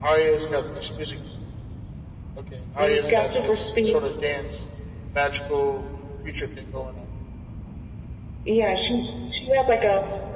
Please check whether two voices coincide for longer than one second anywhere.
Yes, from 2.8 s

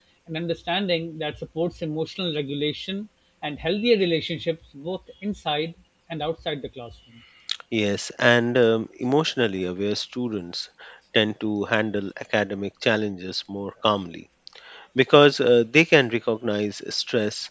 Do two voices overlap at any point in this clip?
No

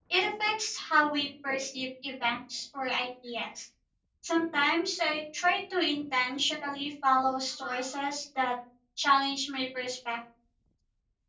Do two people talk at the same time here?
No

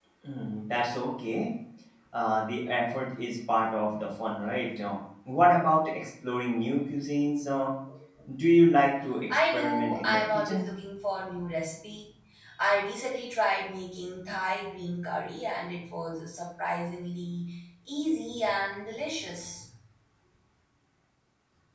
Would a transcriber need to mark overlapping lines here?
Yes, from 9.3 s

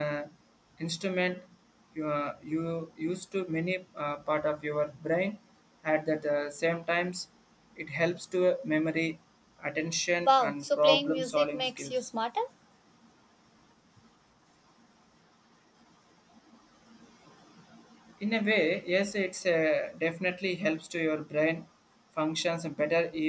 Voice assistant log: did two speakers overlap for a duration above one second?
Yes, from 10.2 s

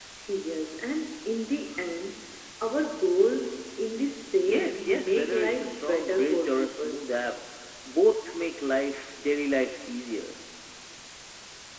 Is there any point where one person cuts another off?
Yes, from 4.4 s

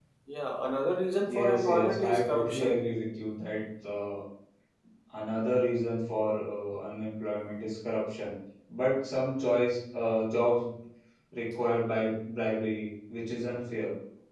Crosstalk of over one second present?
Yes, from 1.2 s

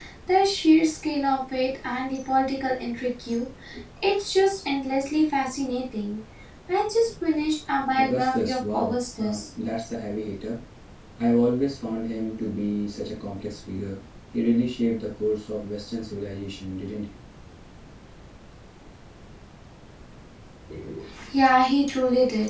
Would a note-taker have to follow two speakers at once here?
Yes, from 8.0 s

